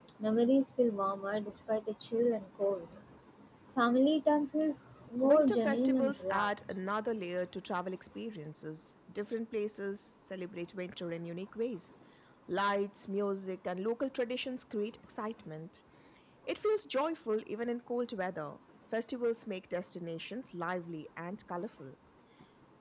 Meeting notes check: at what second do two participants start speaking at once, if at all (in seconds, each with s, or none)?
5.2 s